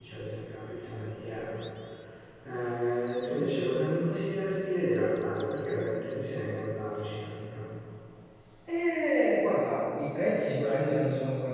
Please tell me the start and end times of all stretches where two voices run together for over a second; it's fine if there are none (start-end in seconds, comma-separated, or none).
none